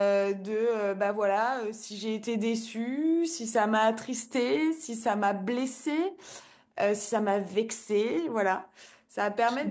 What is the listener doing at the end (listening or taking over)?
listening